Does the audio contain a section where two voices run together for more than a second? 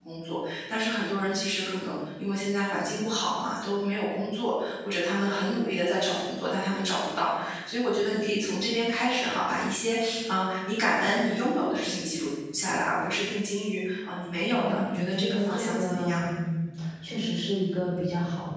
Yes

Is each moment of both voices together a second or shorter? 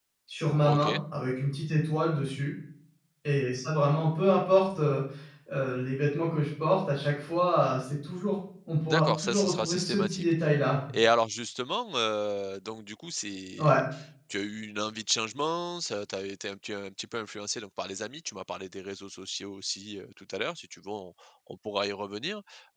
No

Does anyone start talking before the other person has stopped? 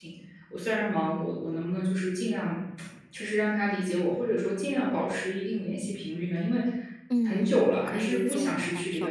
Yes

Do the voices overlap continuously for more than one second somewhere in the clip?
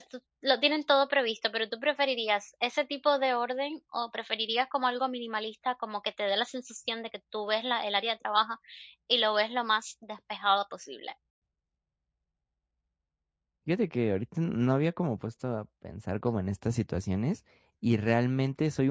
No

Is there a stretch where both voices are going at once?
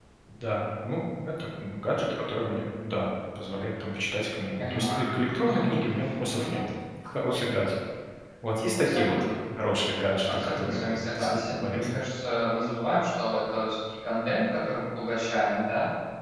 Yes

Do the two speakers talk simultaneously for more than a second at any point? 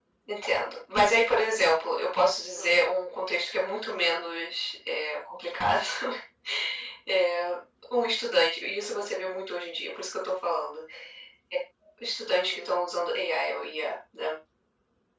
No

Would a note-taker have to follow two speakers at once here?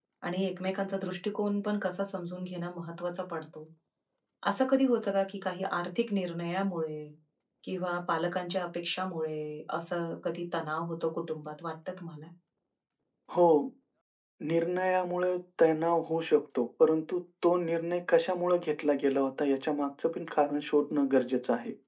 No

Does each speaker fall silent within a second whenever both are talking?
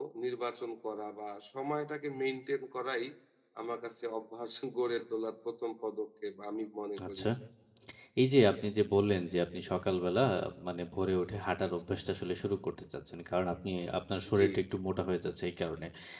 Yes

